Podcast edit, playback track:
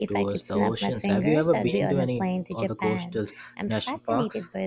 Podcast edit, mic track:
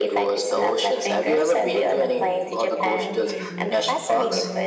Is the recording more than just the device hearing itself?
Yes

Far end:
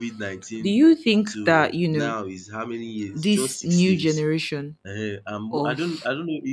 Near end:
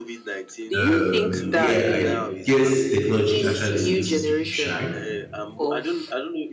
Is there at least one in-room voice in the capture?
Yes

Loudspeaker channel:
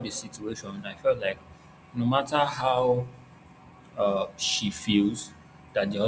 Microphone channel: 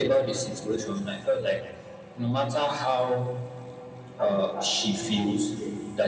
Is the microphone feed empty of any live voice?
No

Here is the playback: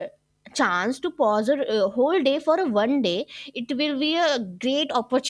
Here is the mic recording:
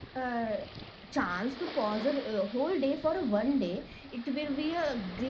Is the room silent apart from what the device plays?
Yes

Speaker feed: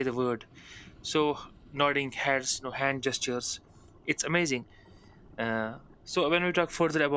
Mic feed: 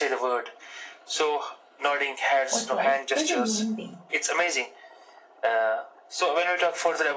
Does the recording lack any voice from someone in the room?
No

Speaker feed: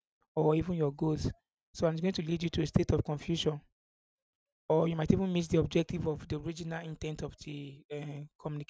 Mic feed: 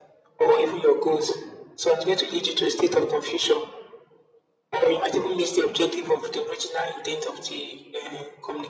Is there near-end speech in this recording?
No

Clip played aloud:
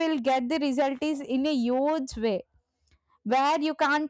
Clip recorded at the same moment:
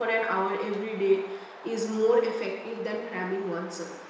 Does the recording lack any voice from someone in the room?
No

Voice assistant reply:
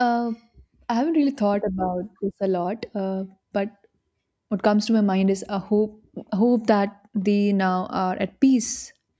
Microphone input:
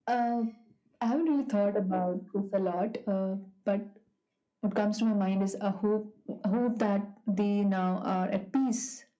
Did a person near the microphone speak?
No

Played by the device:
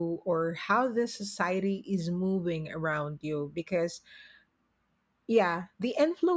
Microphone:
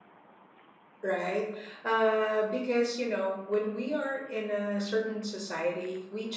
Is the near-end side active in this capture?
Yes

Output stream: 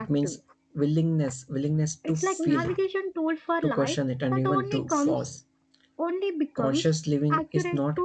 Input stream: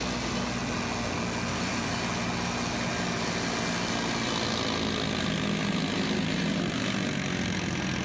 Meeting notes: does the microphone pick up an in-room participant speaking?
No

